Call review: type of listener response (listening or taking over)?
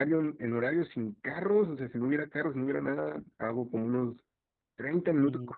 listening